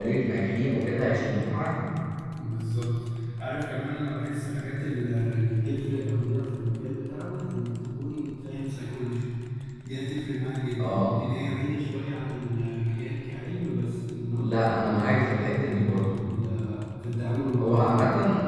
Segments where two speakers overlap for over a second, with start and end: 14.3-16.2

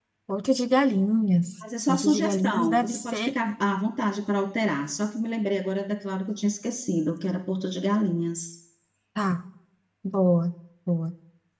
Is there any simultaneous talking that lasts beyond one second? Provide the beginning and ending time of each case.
1.9-3.3

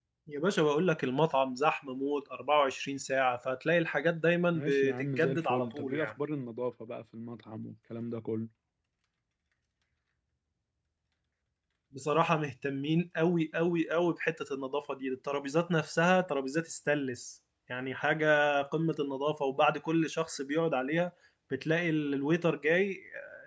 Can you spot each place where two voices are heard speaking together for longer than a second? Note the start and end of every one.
4.5-6.1

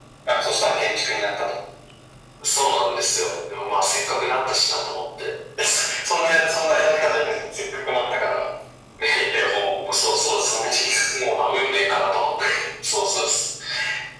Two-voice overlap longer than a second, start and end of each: none

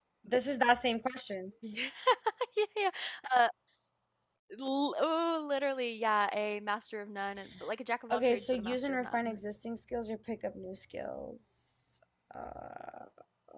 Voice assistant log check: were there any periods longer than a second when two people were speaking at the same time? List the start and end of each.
8.1-9.4

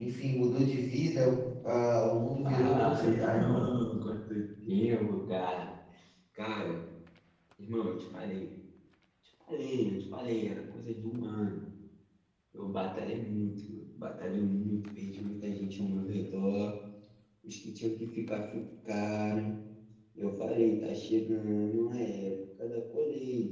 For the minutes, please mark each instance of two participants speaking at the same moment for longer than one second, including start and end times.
2.4-3.8

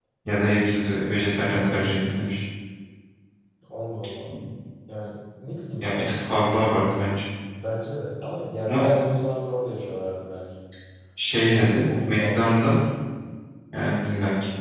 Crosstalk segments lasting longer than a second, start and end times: 11.5-12.8

